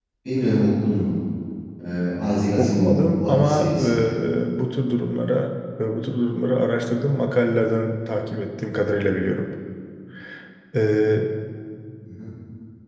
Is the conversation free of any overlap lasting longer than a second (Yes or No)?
No